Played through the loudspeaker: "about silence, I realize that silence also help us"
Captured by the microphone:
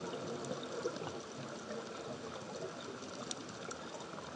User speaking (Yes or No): No